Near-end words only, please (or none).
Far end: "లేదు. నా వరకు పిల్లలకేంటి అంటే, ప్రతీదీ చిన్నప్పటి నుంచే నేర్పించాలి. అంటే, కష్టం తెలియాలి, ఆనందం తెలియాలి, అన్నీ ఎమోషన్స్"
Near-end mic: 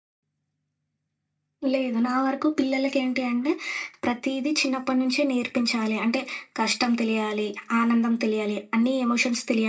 none